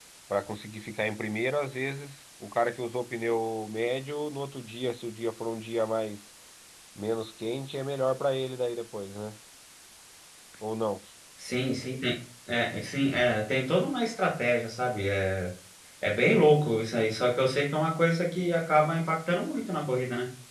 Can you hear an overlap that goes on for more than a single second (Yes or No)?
No